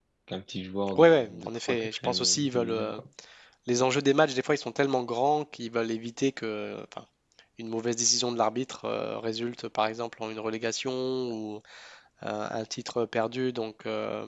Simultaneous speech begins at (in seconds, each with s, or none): 1.0 s